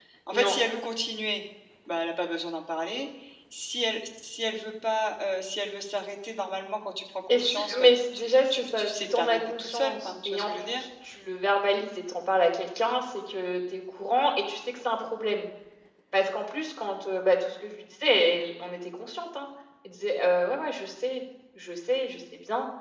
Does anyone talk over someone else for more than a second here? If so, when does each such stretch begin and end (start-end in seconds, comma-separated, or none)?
7.3-10.8